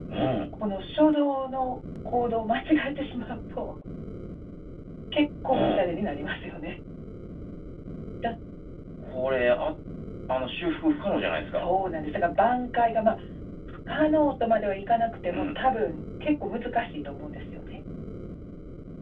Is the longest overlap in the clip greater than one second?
No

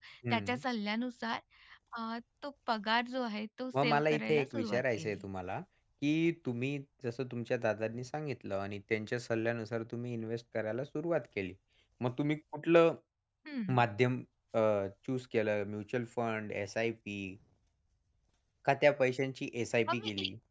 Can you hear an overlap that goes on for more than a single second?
Yes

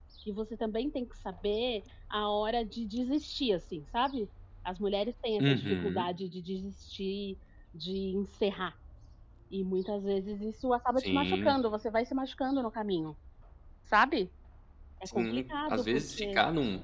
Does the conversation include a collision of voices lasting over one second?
Yes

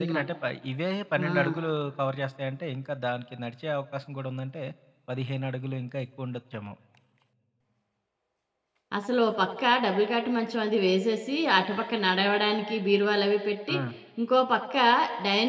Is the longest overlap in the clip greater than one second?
No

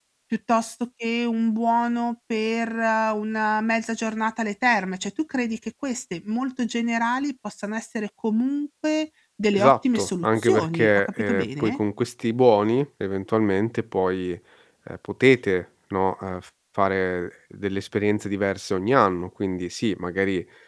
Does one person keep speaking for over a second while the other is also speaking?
Yes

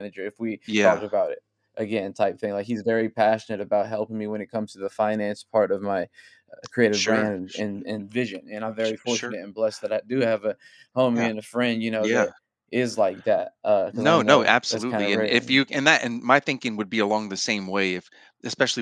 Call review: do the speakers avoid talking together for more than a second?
No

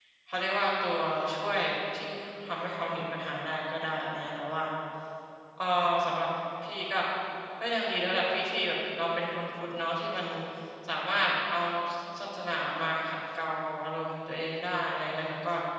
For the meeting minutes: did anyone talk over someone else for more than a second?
No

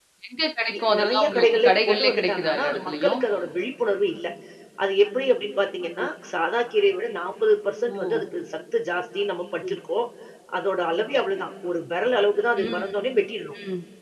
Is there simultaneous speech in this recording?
Yes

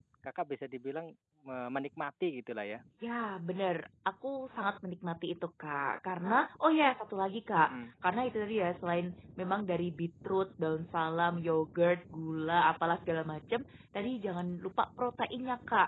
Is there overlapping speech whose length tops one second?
No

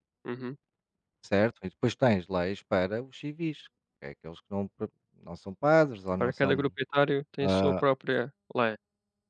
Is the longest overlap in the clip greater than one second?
No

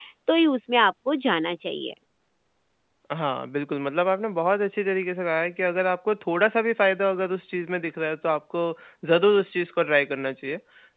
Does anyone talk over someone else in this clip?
No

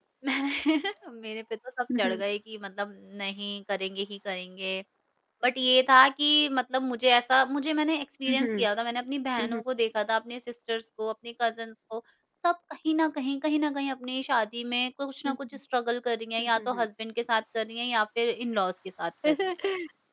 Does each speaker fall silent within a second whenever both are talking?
Yes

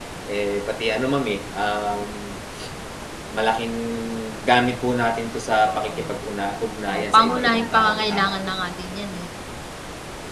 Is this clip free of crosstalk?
No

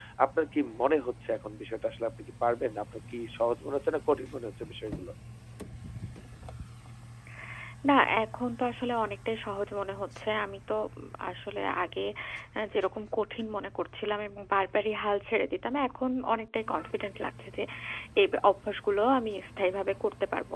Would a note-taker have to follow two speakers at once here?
No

